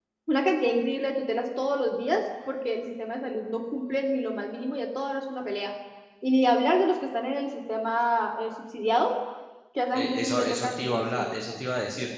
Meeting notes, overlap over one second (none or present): present